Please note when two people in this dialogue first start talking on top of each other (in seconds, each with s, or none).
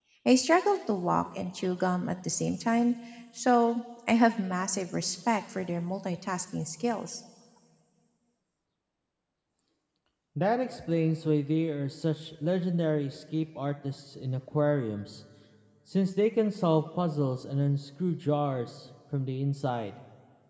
none